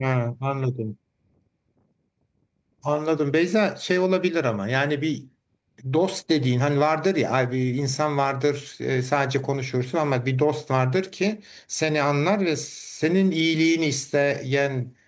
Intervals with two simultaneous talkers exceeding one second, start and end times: none

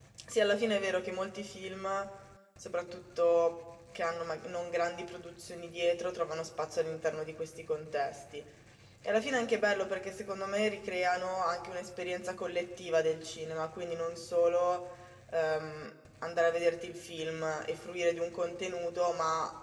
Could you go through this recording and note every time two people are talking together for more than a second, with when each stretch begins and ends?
none

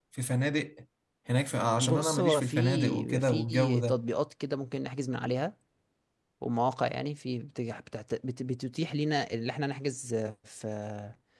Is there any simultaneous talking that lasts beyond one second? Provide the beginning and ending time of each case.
1.8-4.0

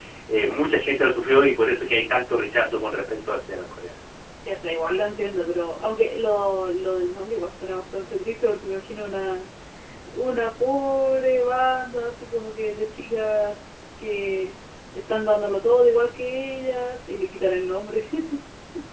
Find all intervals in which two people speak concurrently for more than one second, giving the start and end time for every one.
none

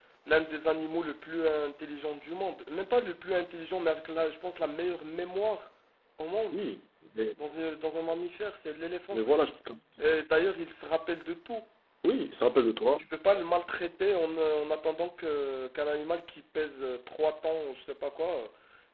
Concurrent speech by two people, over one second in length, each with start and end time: none

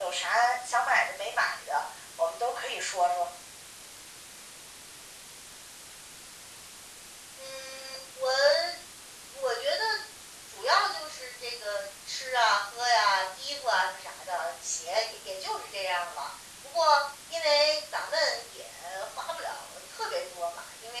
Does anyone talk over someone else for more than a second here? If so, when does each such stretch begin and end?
none

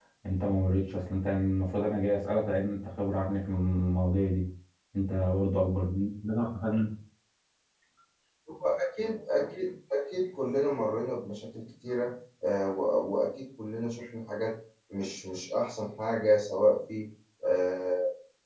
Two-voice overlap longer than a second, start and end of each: none

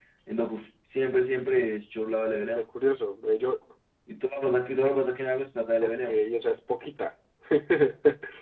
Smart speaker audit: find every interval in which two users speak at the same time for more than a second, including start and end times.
none

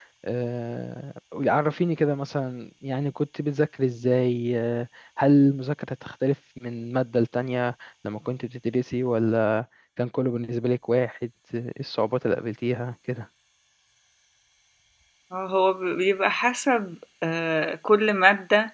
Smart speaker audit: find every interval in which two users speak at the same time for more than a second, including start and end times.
none

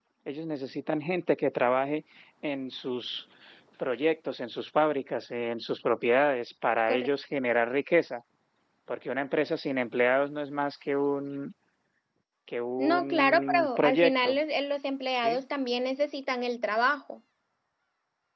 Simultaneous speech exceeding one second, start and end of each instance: 12.8-14.4

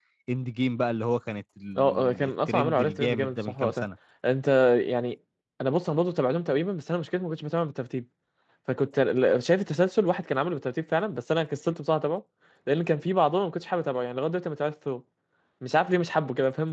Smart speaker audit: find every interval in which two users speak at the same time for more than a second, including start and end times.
1.8-3.8

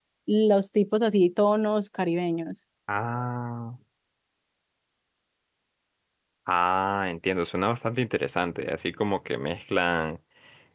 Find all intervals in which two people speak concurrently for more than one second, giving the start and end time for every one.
none

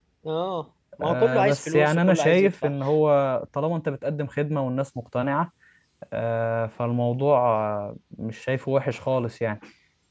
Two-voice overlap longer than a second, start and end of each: 1.0-2.7

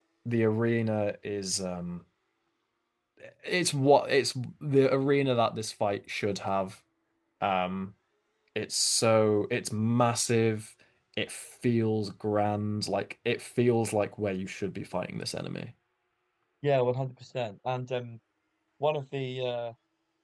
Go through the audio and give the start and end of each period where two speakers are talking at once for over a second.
none

